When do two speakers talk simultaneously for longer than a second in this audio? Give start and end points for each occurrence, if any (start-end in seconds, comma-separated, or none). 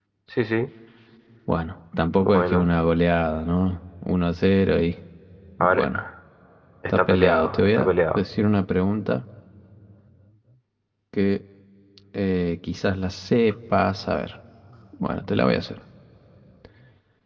6.9-8.2